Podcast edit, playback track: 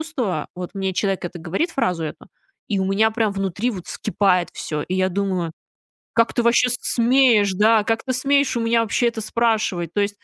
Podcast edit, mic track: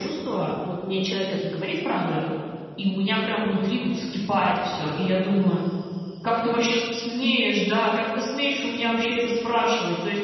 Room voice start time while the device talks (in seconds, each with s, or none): none